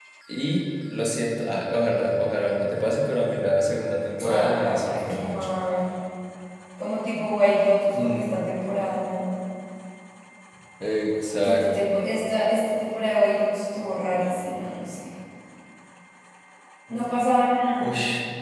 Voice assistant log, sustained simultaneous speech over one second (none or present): present